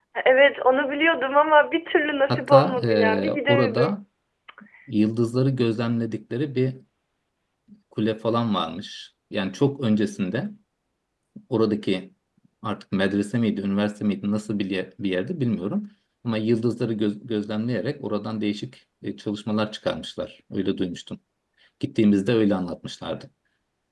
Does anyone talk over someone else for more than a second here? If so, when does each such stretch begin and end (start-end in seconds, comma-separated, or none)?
2.3-4.0